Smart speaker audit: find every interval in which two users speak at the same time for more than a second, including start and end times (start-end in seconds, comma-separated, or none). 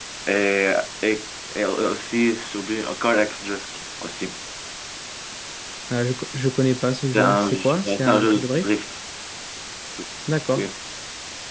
7.1-8.7